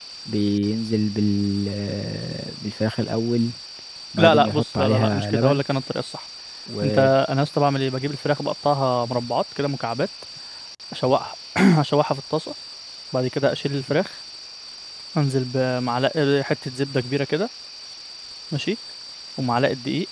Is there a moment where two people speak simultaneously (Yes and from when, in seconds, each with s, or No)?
Yes, from 4.2 s